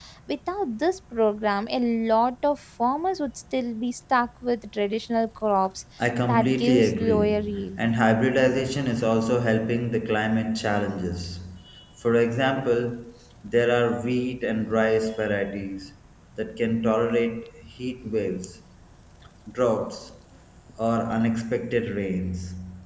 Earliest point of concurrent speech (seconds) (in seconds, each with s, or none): 6.2 s